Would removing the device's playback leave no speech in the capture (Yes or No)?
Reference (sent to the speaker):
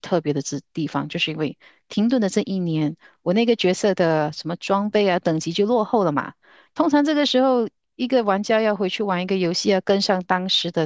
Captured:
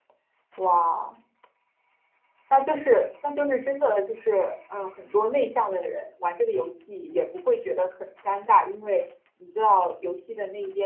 No